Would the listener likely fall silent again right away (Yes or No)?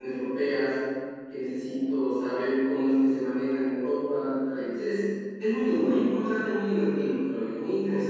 No